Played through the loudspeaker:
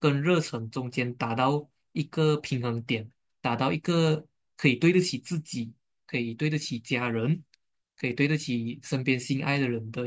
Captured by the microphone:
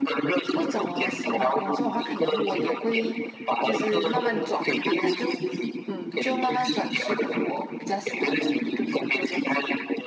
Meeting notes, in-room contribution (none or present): present